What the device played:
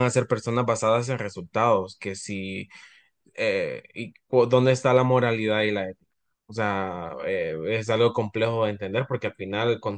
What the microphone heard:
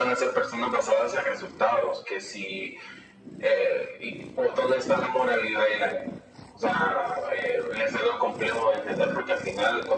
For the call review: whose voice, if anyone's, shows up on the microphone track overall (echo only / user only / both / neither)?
echo only